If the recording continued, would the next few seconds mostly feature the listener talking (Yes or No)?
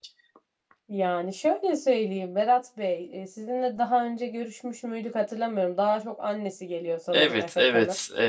Yes